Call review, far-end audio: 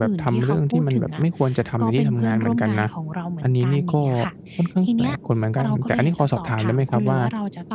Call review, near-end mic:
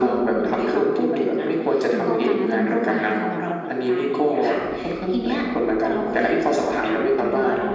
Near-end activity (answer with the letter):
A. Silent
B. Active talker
B